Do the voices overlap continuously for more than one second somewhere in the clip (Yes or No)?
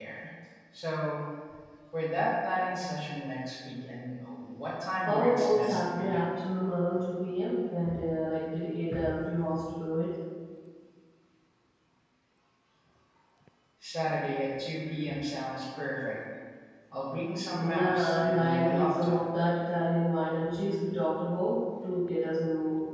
Yes